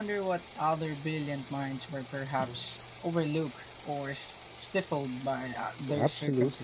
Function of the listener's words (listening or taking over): taking over